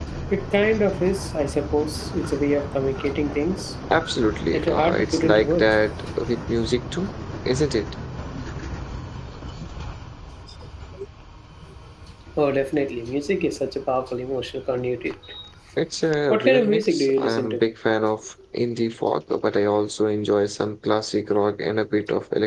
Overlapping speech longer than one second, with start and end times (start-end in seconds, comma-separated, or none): 4.5-5.8, 16.3-17.6